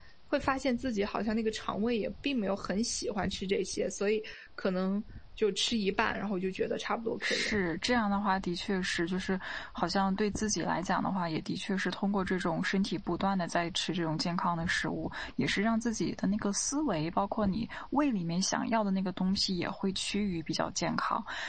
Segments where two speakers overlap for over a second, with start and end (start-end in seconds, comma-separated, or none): none